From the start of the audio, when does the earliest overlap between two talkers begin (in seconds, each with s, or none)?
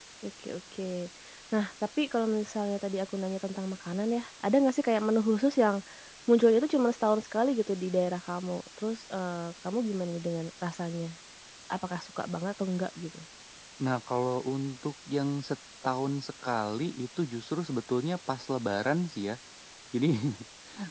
none